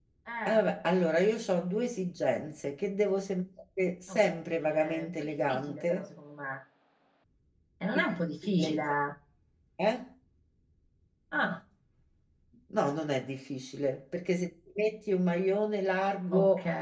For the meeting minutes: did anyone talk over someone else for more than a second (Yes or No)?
Yes